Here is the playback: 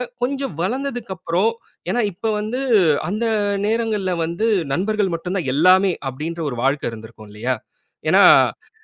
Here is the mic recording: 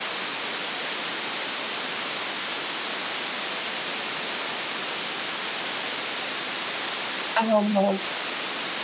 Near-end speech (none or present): present